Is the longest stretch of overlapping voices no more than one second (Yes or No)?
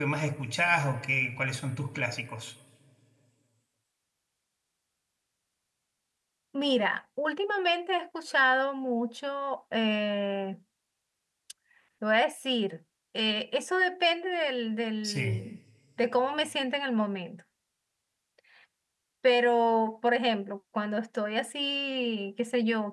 Yes